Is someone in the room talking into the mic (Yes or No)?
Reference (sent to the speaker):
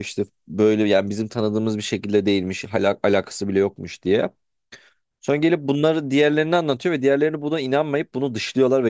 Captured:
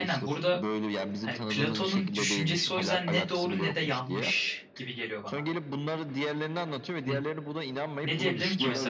Yes